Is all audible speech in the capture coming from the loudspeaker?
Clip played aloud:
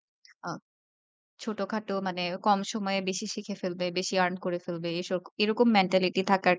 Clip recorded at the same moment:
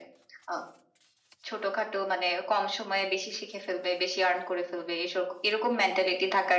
Yes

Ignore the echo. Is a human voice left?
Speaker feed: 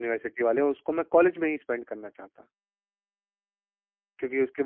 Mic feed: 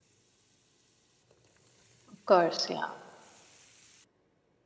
Yes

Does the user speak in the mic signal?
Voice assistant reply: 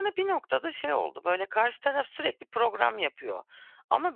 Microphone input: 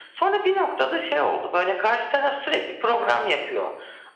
No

